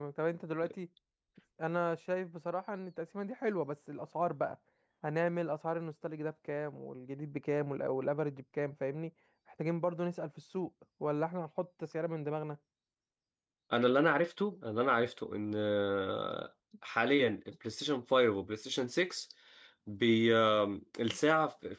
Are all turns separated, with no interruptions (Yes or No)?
Yes